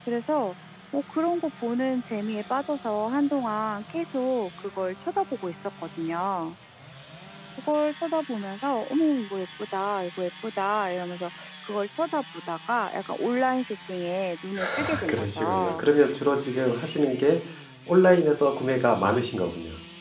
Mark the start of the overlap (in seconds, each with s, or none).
14.6 s